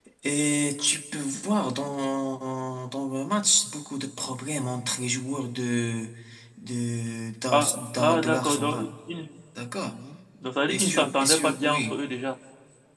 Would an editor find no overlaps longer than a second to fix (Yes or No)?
No